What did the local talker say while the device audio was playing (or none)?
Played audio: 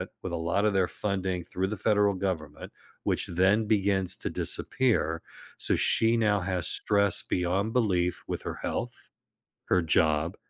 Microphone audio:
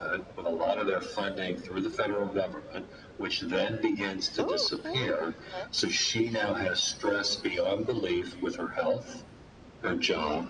Oh, okay, that's good.